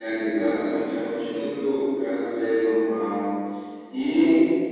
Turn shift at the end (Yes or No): No